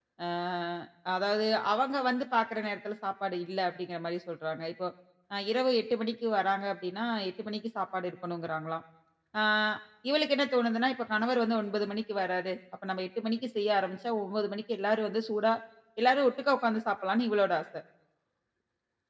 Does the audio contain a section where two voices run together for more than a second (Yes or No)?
No